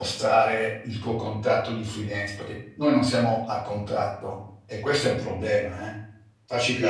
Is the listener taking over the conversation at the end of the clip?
Yes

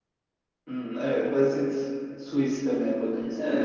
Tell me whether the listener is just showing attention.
No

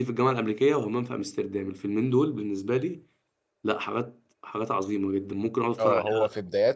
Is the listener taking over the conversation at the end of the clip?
Yes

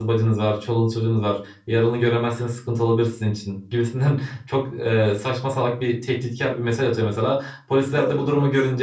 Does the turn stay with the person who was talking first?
Yes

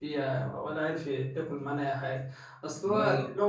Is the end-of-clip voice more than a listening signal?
No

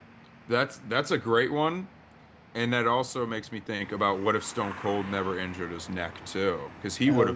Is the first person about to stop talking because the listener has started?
No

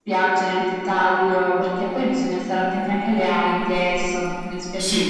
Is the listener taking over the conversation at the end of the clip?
Yes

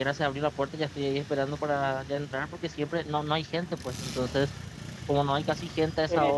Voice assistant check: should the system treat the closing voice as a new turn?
No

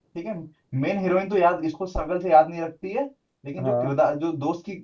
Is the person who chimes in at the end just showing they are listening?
Yes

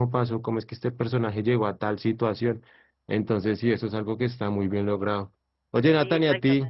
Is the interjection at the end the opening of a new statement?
No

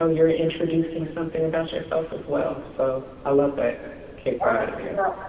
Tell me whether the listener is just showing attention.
No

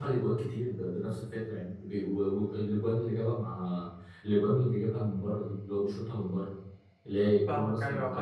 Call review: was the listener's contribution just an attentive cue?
No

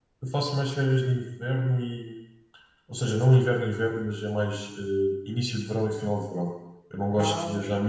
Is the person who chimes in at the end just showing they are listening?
Yes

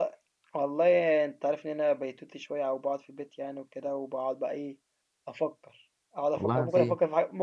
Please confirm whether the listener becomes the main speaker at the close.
No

